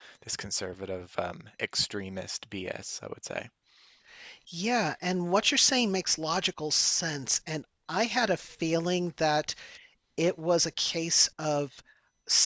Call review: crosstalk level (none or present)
none